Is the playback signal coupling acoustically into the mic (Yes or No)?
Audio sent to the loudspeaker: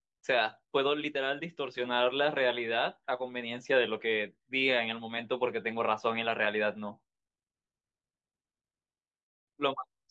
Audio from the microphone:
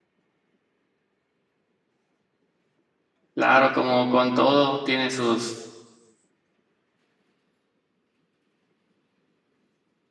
No